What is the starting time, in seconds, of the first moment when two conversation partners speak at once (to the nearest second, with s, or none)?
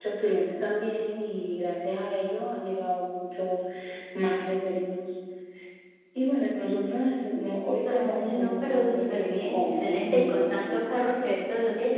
8 s